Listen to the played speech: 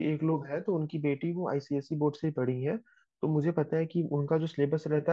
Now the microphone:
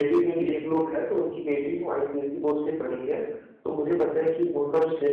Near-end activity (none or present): none